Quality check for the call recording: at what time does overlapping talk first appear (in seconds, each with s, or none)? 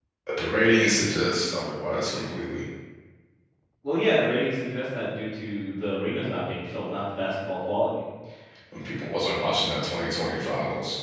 none